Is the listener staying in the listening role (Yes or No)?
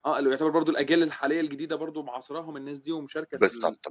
No